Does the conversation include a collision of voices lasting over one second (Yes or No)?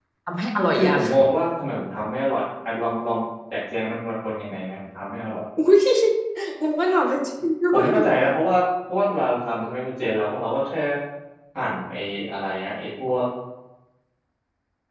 No